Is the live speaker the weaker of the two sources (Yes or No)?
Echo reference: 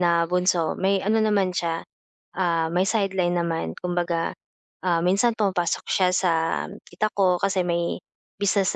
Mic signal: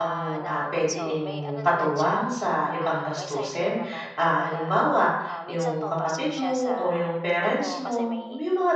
No